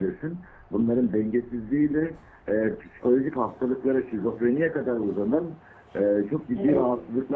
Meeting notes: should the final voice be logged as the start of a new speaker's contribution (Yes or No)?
No